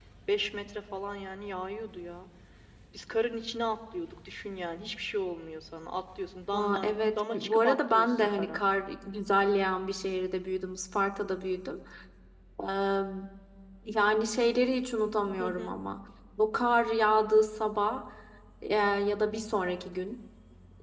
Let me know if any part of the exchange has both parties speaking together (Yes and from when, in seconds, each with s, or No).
Yes, from 6.5 s